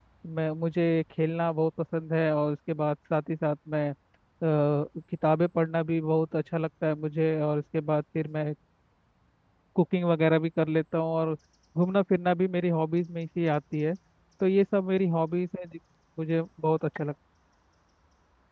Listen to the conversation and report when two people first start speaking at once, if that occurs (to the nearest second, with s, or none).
none